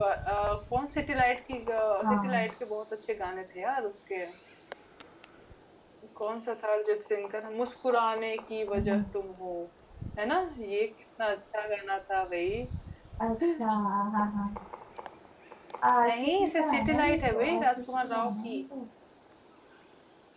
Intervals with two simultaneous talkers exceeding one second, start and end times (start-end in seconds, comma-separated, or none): 16.0-18.6